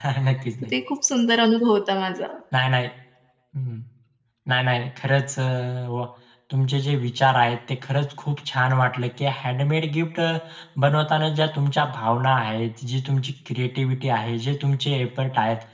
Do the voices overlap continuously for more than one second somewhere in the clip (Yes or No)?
No